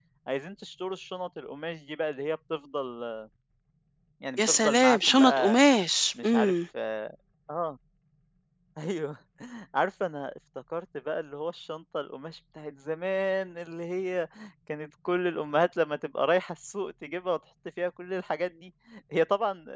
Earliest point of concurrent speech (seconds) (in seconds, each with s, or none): 4.4 s